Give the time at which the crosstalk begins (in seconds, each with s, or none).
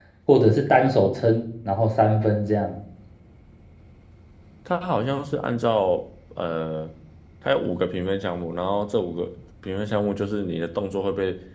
none